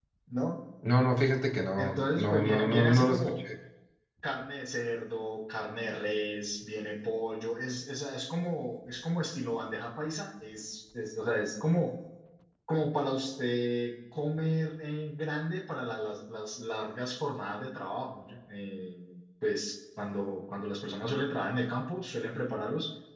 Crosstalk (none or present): present